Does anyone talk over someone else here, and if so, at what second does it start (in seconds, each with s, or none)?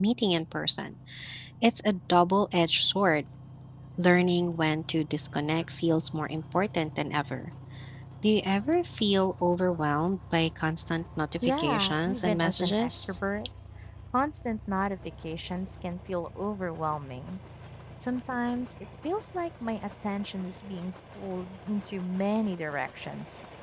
11.4 s